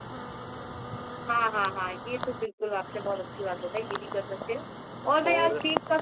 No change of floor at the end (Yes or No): Yes